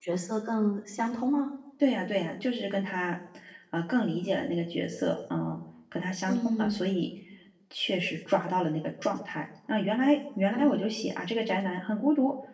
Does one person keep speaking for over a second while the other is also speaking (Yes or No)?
No